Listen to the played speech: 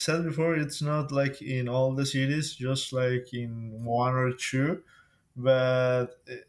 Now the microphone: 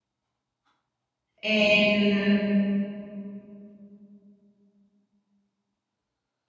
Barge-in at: 1 s

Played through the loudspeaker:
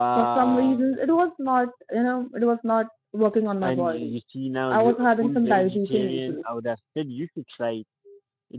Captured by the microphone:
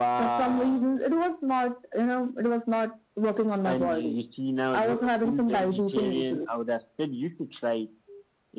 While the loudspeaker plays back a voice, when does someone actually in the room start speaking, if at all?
none

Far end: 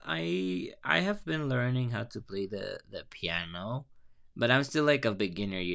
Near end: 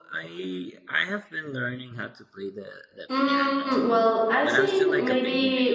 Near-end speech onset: 3 s

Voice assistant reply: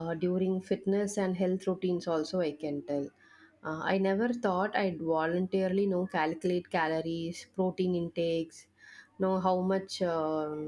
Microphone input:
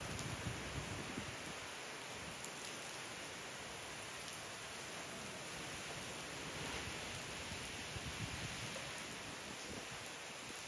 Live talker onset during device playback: none

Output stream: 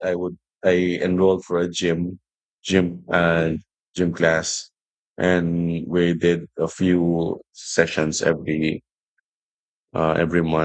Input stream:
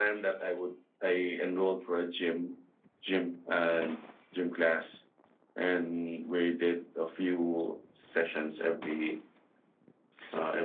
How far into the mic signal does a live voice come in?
none

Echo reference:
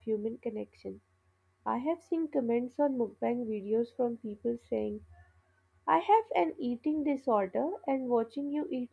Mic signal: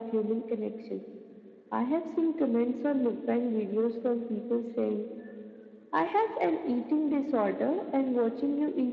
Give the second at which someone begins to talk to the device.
none

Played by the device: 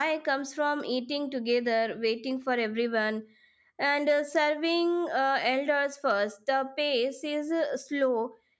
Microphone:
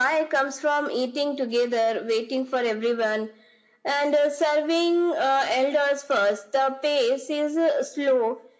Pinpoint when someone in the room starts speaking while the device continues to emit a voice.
none

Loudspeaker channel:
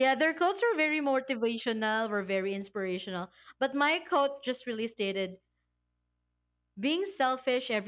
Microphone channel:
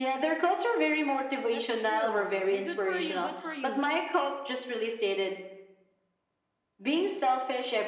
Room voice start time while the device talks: 1 s

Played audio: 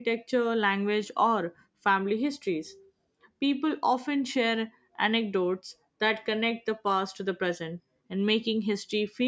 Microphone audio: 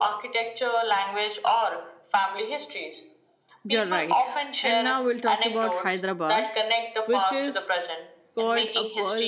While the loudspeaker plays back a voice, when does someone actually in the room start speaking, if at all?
4 s

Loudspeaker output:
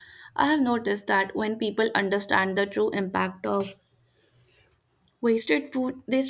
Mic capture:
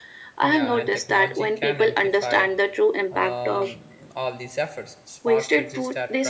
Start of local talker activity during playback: 0 s

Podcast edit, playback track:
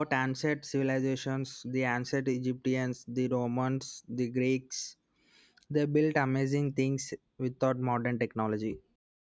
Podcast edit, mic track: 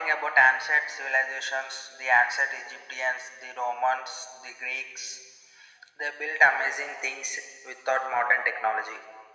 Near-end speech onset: none

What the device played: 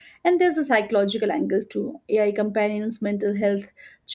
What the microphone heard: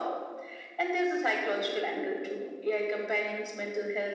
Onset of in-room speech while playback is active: none

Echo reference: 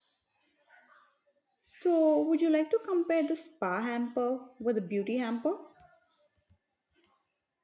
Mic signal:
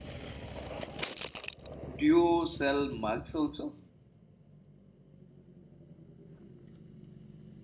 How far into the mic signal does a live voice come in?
2 s

